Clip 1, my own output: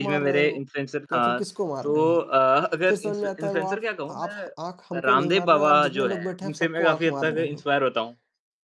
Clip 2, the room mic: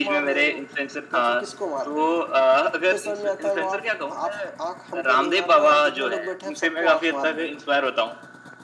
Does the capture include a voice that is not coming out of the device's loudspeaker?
No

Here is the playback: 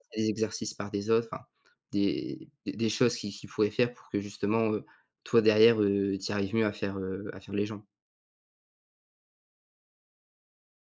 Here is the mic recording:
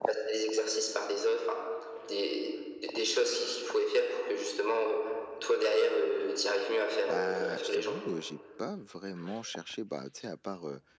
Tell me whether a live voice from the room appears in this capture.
Yes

